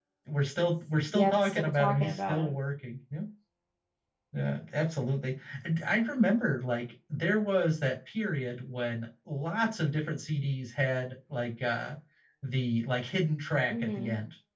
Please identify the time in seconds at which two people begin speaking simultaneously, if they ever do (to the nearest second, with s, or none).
1 s